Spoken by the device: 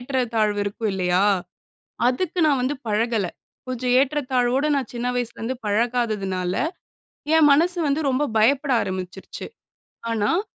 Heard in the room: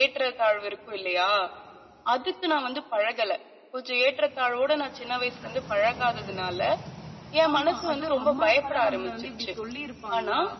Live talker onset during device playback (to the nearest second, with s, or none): 8 s